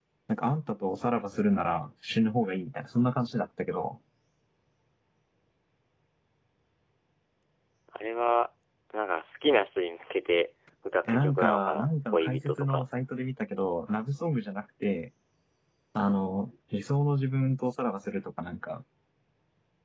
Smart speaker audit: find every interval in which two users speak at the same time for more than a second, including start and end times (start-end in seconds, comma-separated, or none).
11.1-12.8